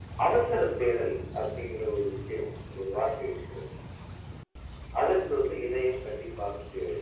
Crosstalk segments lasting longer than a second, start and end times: none

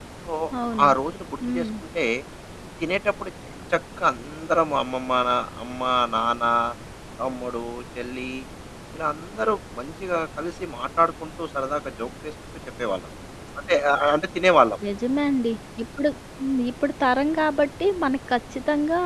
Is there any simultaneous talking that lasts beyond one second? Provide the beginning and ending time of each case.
none

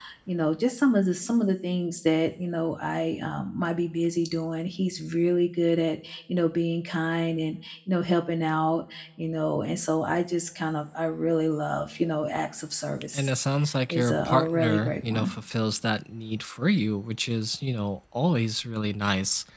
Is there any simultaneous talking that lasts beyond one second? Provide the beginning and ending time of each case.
13.9-15.3

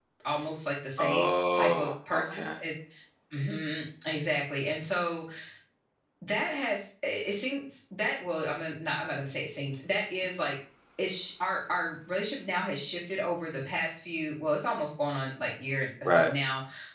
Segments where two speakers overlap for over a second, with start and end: 1.0-2.5

